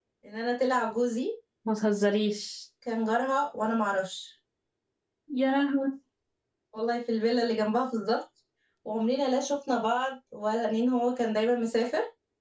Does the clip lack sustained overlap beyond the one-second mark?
Yes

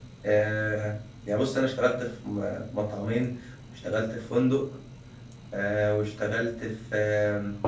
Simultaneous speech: No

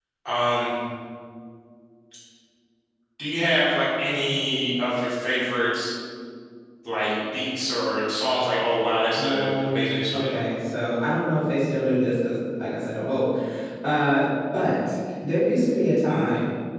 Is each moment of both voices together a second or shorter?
No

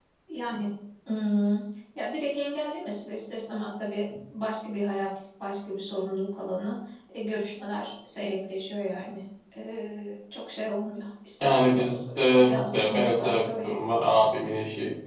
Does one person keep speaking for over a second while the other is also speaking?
Yes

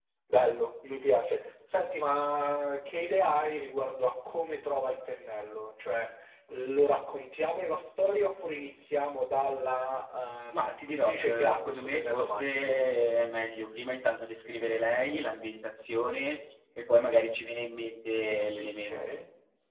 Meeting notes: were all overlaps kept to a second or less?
No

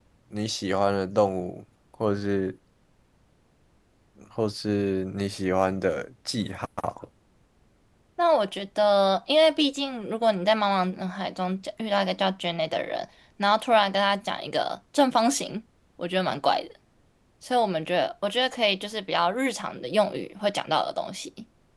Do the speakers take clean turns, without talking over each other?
Yes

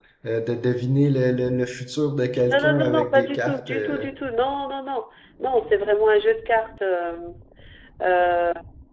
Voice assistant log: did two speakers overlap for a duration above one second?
Yes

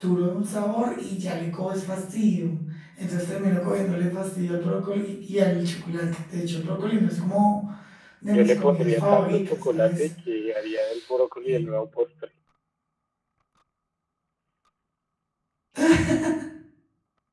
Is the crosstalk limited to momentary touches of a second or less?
No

